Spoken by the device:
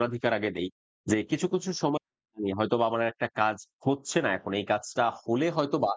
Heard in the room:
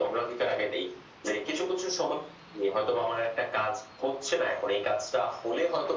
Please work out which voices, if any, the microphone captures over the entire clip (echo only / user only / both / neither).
echo only